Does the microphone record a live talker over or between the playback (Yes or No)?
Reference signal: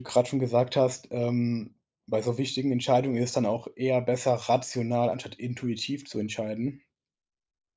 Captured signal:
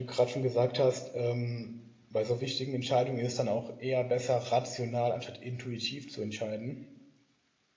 No